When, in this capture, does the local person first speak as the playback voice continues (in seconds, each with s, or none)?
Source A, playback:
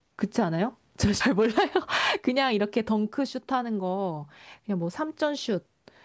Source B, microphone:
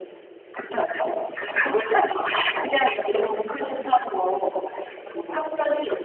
none